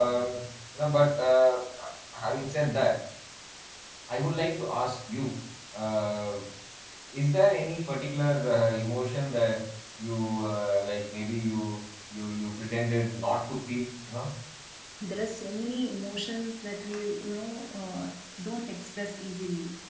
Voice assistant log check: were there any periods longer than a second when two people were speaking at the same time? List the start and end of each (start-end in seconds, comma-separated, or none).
none